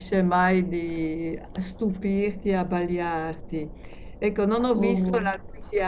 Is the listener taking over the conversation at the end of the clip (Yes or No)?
No